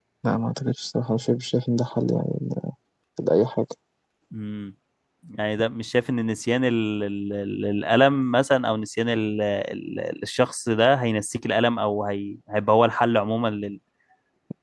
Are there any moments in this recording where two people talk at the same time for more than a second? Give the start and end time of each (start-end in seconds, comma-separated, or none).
none